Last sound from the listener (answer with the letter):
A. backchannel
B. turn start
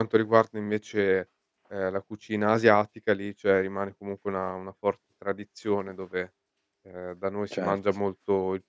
A